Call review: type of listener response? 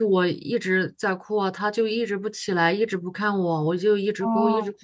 listening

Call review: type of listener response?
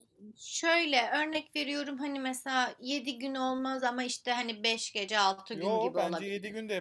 taking over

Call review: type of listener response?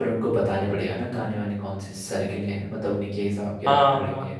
taking over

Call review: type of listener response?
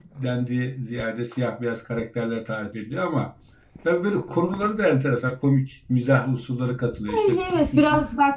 taking over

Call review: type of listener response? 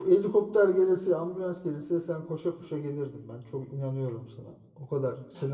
taking over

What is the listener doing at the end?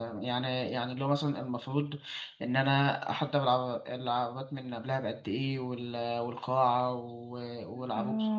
taking over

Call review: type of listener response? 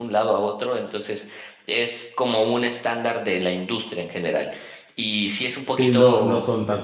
taking over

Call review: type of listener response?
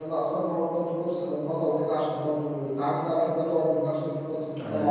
listening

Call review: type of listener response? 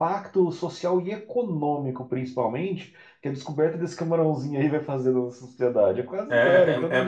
taking over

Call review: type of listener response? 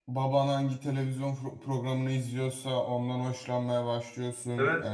taking over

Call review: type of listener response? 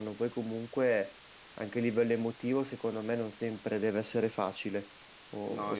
taking over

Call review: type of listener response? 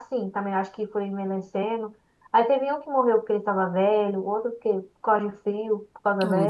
listening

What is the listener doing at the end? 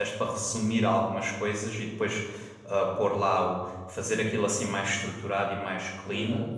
listening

